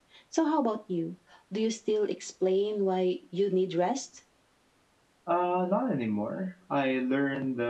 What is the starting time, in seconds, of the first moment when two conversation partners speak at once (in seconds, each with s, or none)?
none